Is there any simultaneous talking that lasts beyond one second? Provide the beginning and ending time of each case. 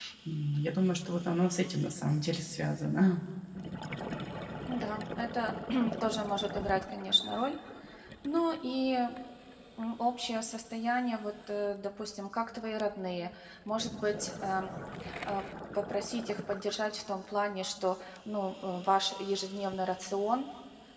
none

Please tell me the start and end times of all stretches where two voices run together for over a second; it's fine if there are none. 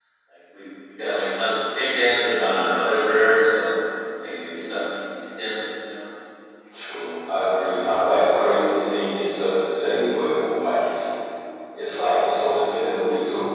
none

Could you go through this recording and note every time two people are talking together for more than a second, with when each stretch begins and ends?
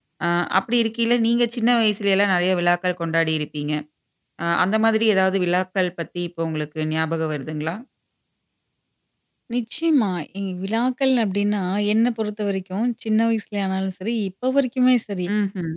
none

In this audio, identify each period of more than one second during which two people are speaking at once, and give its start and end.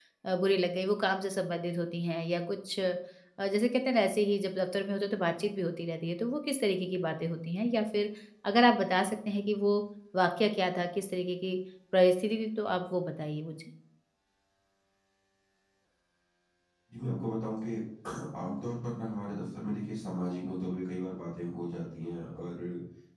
none

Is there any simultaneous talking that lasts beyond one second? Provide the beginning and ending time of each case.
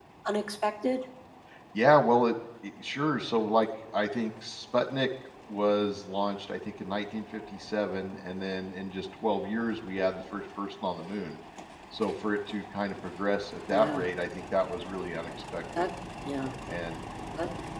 none

